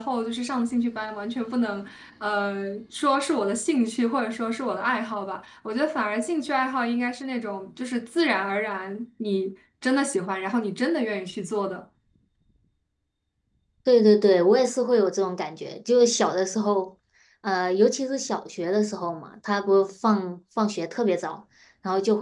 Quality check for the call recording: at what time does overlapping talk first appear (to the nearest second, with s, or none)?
none